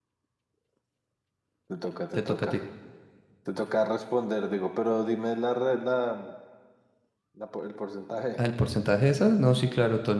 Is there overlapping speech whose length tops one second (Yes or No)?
No